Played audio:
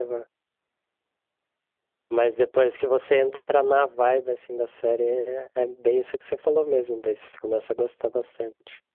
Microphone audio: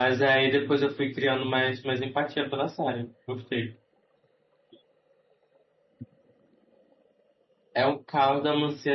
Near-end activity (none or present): present